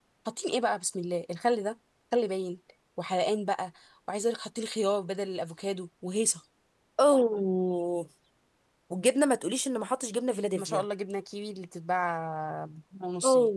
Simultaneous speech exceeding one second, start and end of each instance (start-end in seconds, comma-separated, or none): none